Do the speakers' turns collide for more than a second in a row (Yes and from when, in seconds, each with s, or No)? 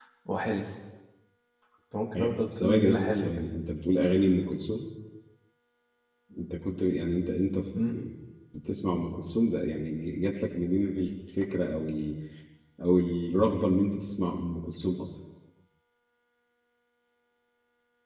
Yes, from 2.2 s